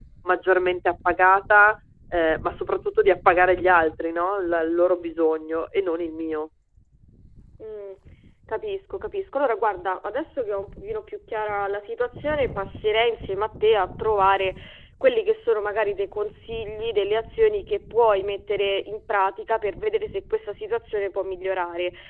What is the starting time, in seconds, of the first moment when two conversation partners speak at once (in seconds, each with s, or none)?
none